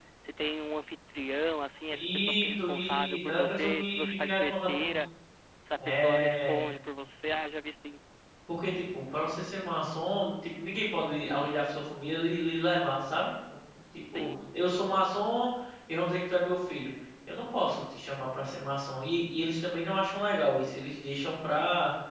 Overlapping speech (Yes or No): Yes